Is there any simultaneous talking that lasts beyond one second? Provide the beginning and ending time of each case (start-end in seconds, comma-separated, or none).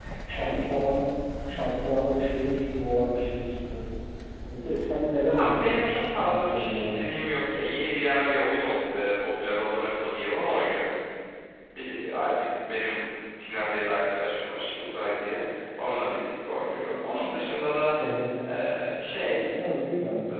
5.3-7.0